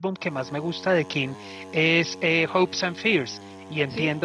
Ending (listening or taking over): listening